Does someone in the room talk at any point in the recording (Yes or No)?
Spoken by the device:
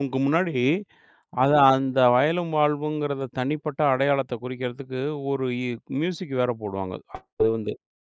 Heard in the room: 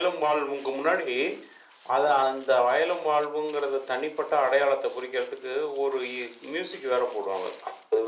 No